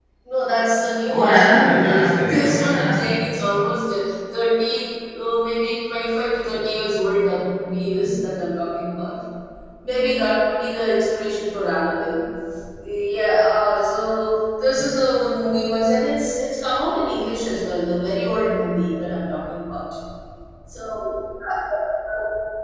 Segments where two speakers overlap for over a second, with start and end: 1.1-3.2

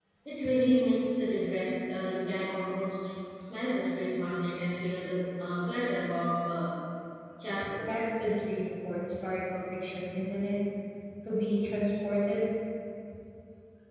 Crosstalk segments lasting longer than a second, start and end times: none

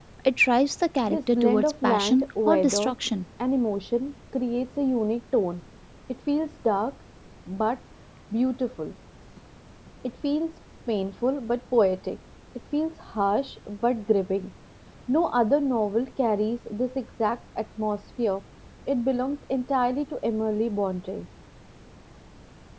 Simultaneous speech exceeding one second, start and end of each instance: 1.1-2.9

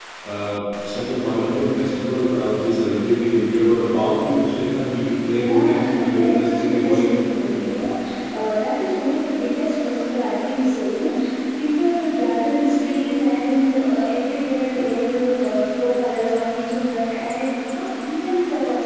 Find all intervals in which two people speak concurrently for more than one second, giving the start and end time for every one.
5.3-7.1

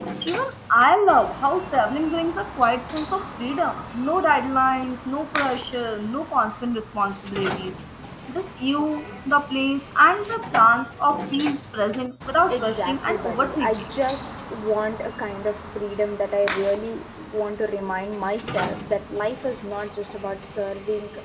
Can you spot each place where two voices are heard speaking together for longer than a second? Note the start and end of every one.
12.5-13.7

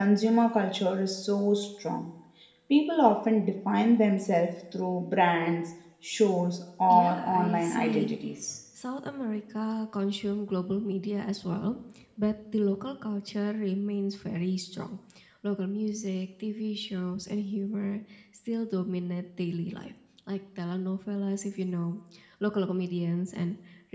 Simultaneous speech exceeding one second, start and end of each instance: 6.9-8.1

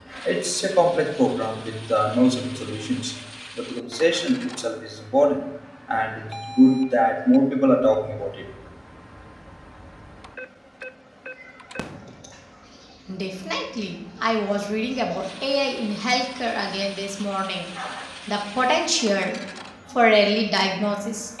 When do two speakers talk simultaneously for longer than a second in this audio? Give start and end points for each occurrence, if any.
none

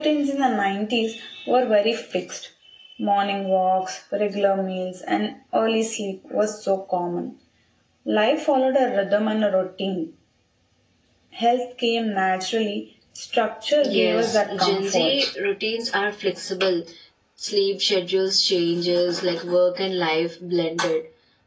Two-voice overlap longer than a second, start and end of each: 13.8-15.2

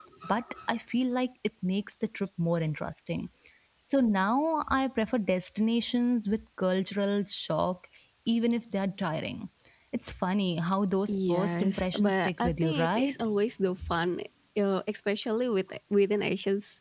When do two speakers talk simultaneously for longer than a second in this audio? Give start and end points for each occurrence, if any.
11.1-13.2

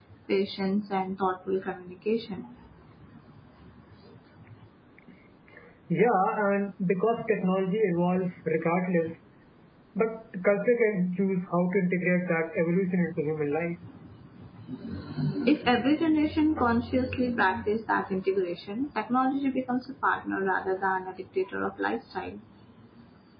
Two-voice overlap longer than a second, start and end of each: none

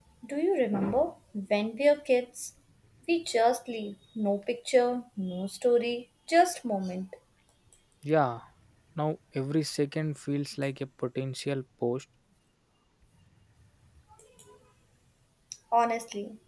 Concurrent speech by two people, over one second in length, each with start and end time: none

